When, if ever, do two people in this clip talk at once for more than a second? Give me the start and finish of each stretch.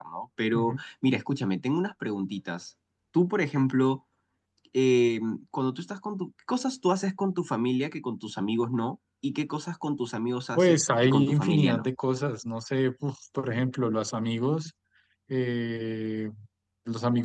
10.6-11.9

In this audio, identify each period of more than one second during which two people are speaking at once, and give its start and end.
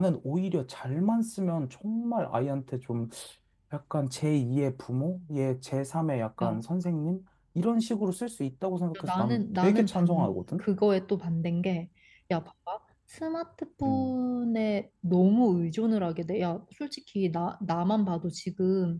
9.0-10.6

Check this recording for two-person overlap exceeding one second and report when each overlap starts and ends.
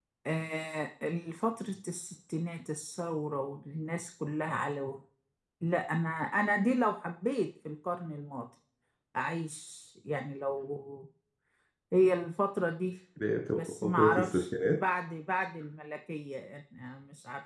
13.6-14.8

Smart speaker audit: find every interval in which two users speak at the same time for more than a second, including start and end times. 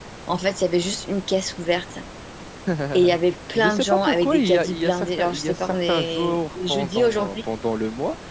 3.5-7.3

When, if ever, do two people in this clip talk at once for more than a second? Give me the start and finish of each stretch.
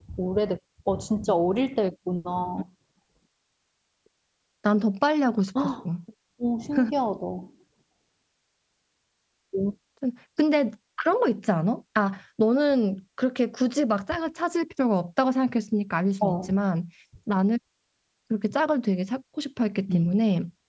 none

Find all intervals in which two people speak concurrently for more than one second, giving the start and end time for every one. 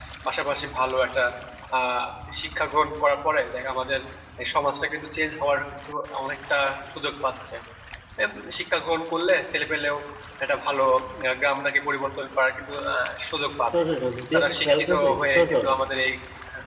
14.3-15.7

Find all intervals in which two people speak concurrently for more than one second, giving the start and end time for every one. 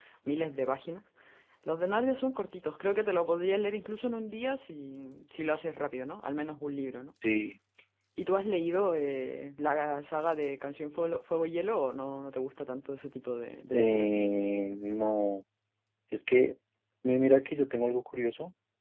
none

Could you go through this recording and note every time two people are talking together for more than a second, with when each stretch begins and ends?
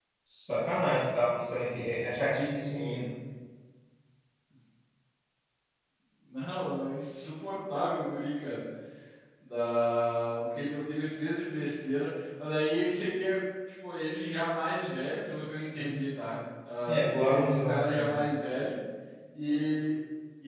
16.9-18.1

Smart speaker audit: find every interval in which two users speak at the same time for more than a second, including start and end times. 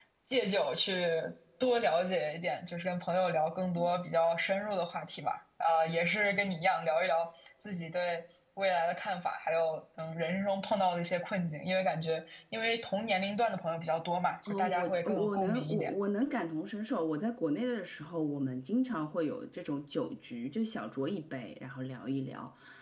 14.5-15.9

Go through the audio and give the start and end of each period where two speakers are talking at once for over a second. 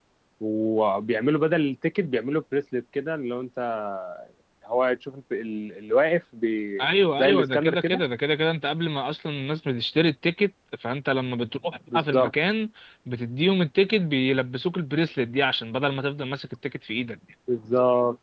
6.8-8.0

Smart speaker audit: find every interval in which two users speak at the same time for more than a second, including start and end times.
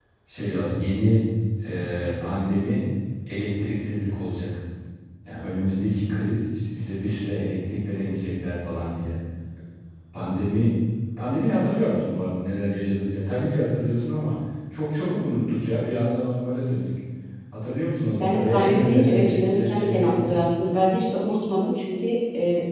18.2-20.3

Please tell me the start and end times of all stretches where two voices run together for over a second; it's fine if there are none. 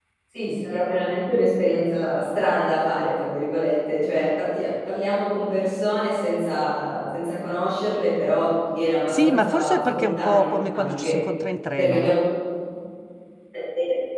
9.1-11.2

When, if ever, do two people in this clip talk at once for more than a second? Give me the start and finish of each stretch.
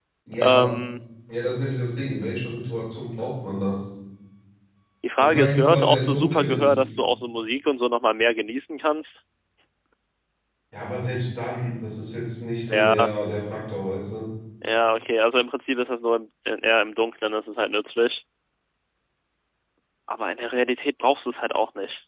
5.2-6.9

